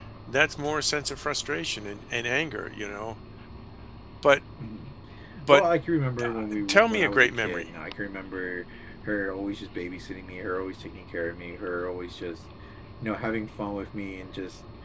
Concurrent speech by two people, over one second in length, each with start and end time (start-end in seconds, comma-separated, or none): 6.2-7.7